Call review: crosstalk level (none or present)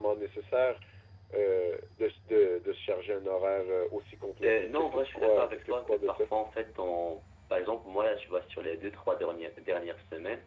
present